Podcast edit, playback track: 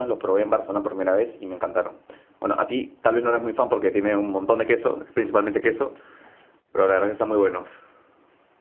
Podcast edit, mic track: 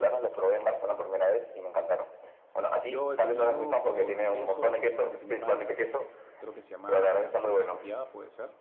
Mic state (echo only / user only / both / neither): both